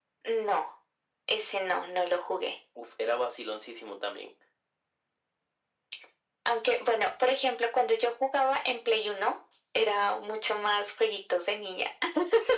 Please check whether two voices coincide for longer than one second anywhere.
No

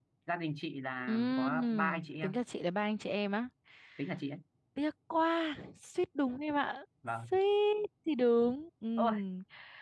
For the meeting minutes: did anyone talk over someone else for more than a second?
Yes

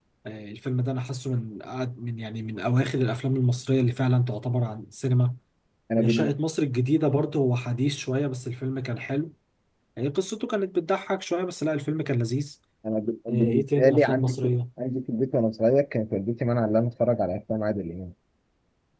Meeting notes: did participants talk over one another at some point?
Yes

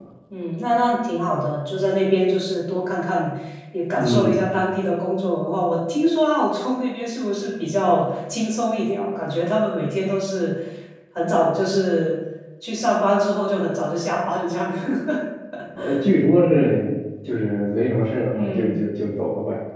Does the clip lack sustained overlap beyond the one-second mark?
Yes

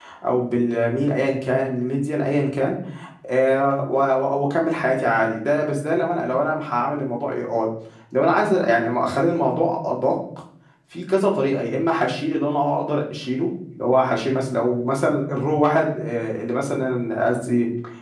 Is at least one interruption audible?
No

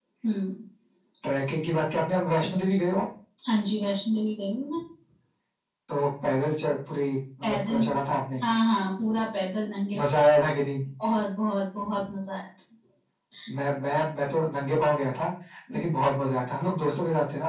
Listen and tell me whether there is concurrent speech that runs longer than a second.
No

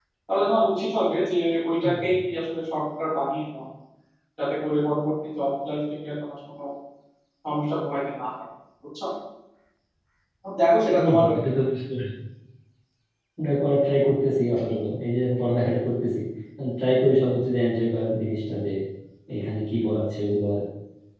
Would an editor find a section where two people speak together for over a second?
No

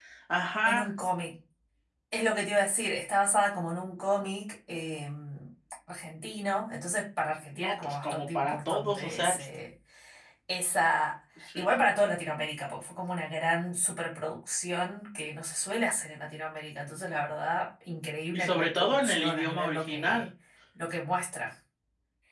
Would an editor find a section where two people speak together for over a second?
Yes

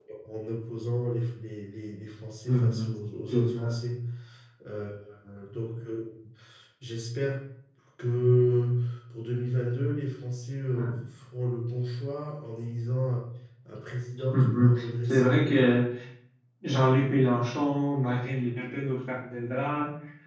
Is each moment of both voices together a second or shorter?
No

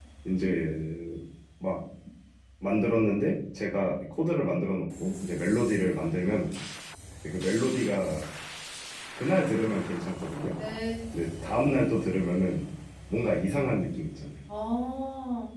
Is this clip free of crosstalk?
Yes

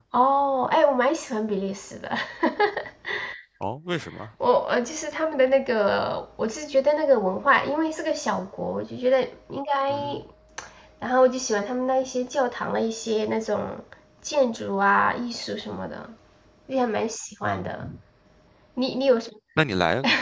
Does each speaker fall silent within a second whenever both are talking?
Yes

